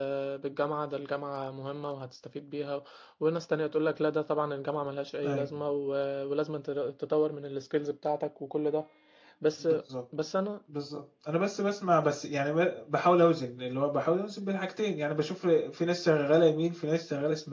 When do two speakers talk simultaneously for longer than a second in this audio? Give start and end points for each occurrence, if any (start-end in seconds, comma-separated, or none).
none